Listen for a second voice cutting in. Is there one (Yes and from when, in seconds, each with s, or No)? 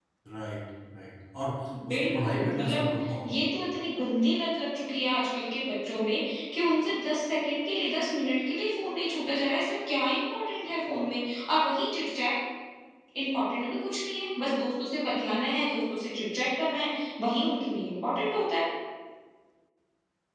Yes, from 1.7 s